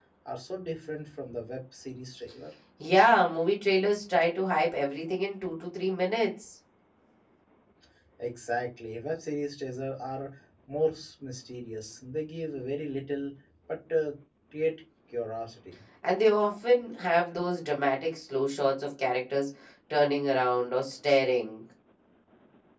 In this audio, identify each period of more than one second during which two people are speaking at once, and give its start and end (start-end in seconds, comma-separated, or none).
none